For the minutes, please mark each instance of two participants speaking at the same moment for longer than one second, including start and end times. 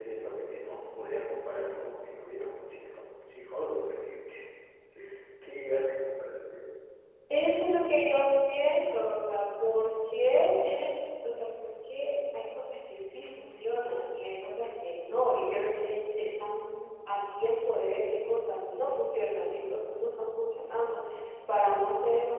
none

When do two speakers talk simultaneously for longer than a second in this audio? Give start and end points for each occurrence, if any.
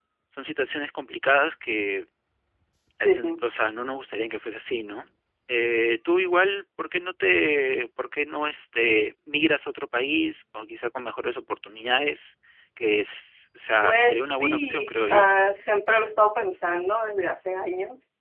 13.8-15.2

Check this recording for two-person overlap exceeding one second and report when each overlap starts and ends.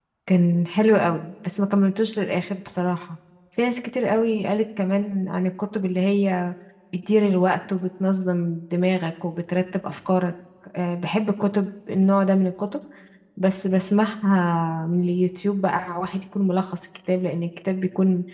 none

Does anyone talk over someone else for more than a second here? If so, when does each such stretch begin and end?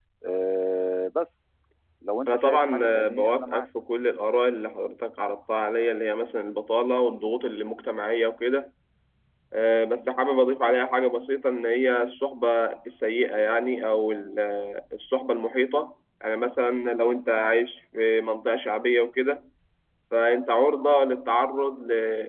2.3-3.7

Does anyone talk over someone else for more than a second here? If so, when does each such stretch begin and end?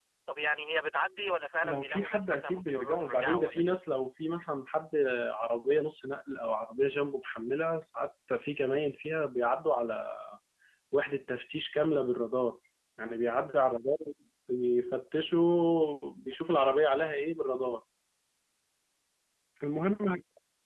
1.6-3.8

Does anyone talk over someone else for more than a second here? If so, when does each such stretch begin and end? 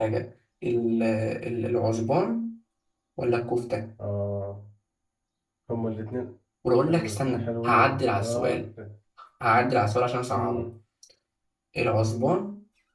6.9-8.6

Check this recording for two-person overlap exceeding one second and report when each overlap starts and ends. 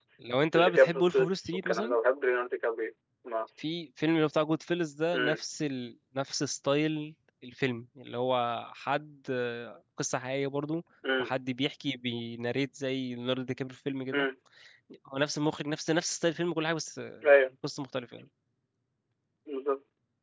0.6-2.0

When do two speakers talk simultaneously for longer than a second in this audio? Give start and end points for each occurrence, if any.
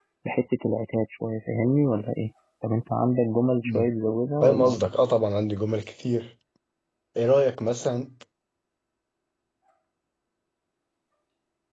none

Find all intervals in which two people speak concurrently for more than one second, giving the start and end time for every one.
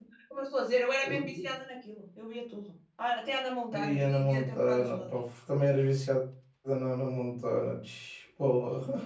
3.7-5.1

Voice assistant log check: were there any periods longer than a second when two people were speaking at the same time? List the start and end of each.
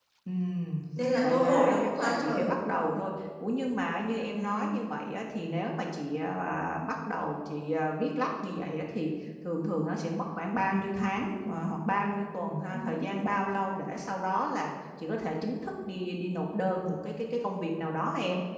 1.2-2.5

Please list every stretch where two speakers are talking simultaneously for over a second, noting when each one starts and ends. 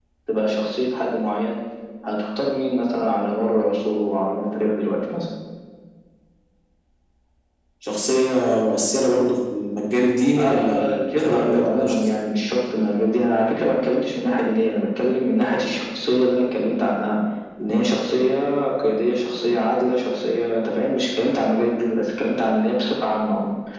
10.4-12.2

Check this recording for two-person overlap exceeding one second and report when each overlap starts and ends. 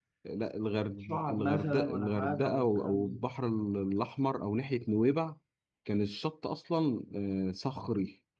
1.0-3.2

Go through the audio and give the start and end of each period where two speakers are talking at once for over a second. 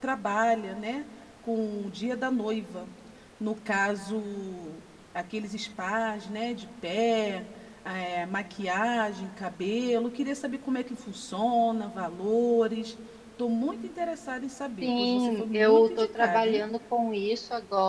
14.8-16.6

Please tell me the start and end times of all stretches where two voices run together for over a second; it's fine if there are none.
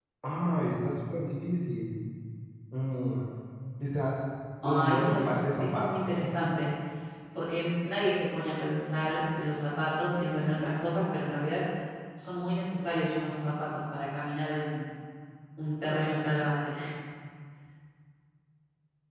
4.6-5.9

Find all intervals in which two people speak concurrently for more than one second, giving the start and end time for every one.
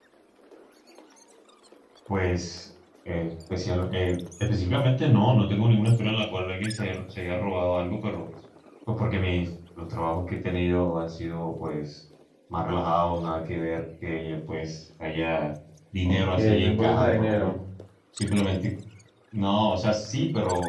16.0-17.5

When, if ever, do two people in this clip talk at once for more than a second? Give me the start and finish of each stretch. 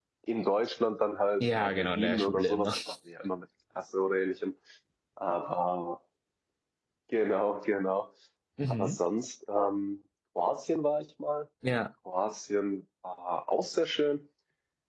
1.4-2.7

